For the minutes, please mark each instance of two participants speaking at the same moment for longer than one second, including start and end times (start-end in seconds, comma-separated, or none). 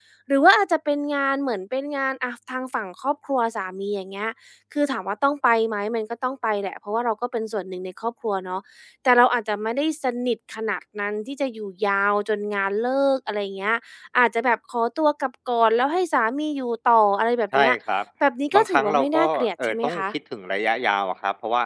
18.5-20.0